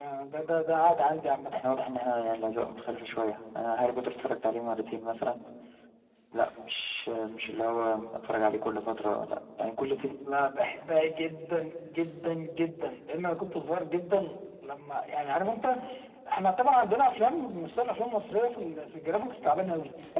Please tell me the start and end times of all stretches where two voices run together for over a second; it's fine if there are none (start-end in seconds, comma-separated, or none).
none